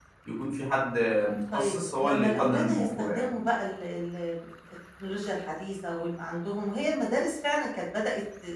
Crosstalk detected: Yes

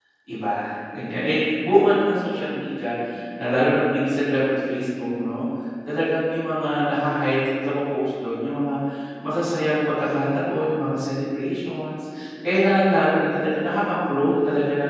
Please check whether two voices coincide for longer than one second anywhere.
No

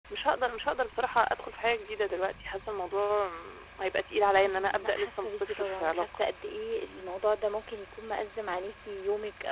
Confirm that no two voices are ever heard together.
No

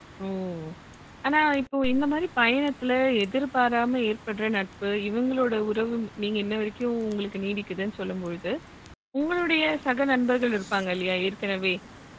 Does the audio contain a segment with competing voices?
No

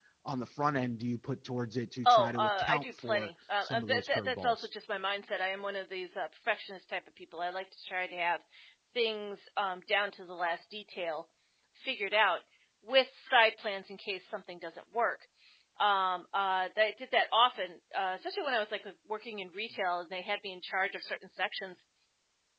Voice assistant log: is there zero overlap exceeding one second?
No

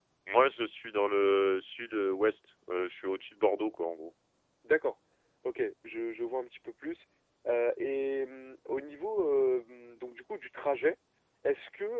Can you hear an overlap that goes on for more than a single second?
No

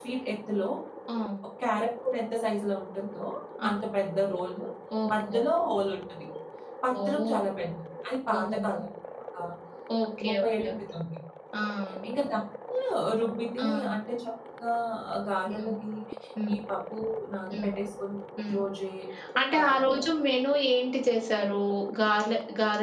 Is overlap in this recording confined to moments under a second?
Yes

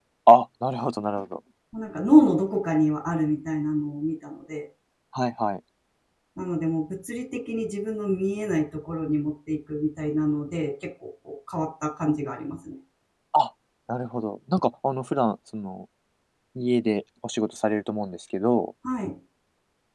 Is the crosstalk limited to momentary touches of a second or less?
Yes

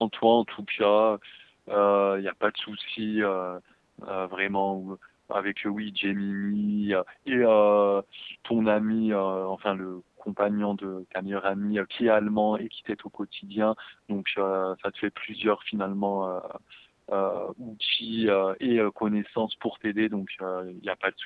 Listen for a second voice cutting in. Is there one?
No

